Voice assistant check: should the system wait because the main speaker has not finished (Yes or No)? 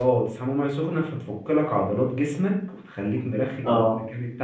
No